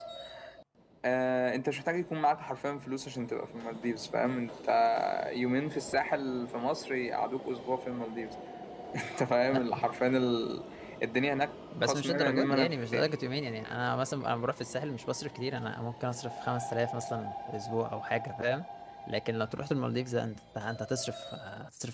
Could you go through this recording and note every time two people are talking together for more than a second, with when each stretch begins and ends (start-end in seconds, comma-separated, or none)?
11.8-13.1